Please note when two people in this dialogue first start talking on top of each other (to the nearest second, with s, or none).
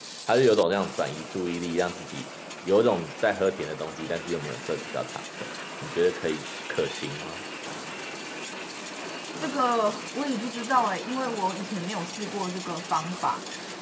none